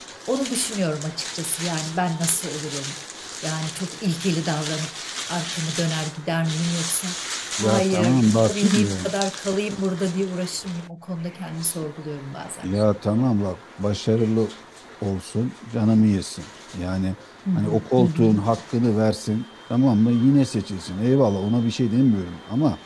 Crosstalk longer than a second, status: present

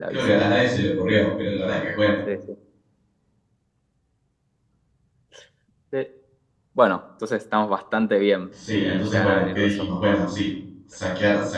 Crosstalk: present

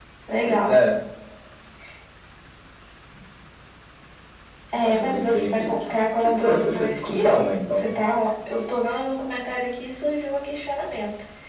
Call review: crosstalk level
present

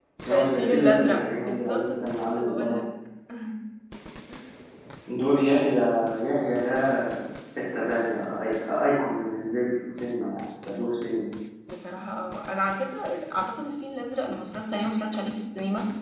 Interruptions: present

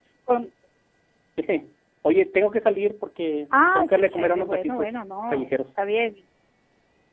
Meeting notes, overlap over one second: present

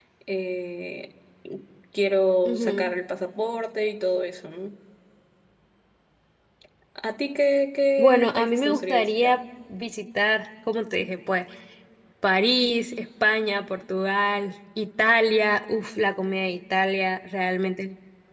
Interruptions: present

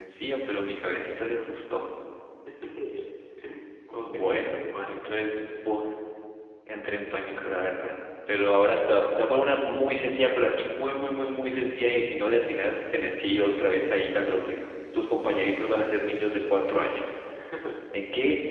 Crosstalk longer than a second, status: present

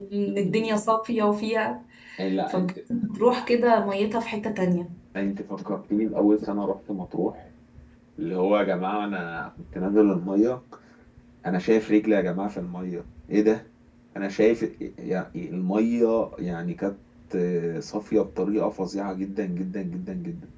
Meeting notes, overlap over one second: none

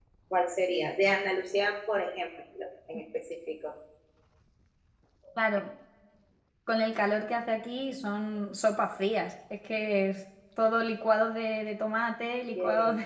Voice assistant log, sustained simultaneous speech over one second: none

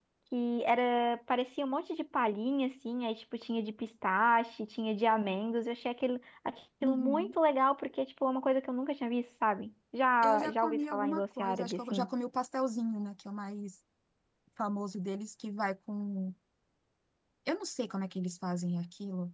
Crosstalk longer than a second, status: present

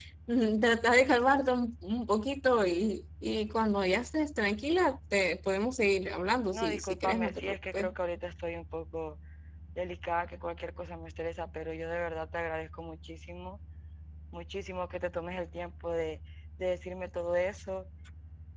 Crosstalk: present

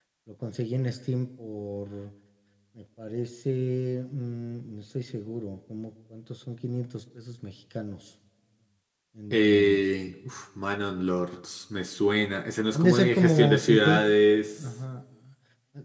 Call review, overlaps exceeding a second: present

